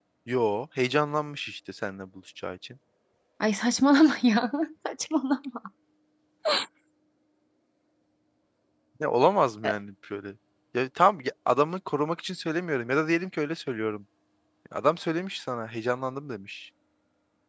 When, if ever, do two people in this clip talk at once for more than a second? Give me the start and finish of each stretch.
none

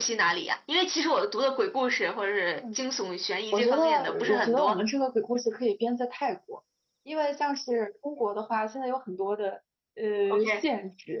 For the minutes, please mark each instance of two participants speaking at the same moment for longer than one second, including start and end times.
3.5-4.8

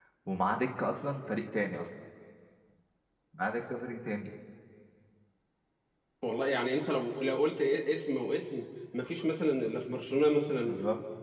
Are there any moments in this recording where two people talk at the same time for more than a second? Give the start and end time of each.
none

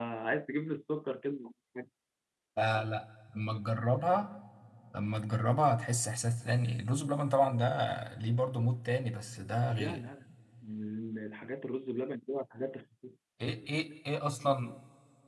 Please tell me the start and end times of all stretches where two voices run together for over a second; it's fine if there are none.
none

